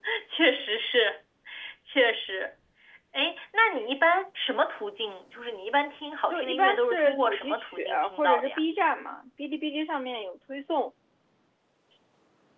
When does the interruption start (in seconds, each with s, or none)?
6.3 s